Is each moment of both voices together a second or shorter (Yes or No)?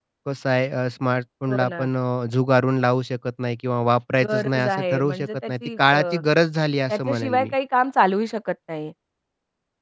No